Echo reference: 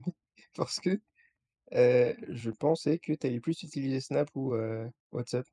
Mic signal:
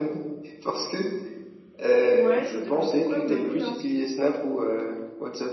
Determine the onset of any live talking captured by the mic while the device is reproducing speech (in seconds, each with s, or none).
2.1 s